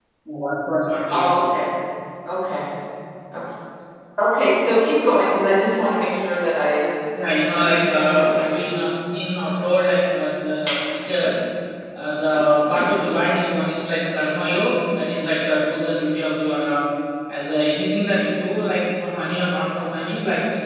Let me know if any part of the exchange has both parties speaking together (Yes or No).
Yes